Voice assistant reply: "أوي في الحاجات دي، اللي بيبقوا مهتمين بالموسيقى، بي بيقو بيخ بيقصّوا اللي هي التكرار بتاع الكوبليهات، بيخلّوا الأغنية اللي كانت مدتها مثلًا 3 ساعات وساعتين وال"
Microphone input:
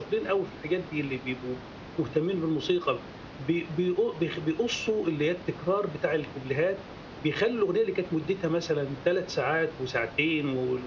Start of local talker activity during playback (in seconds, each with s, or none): none